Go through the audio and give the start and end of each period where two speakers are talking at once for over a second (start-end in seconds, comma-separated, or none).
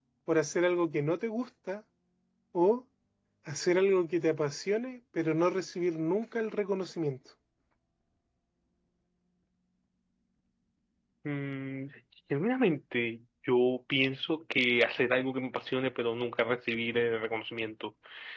none